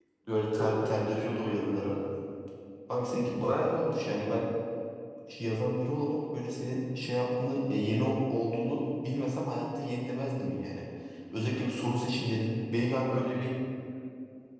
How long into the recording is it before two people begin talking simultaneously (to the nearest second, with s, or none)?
1 s